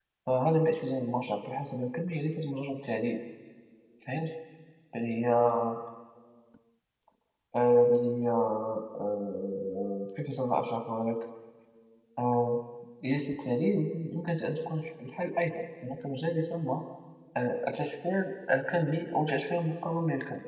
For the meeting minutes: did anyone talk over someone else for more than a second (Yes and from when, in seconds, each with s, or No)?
No